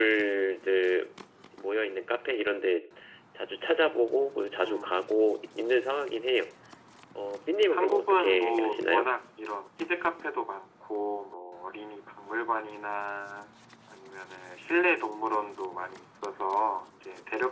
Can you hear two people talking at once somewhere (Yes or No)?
Yes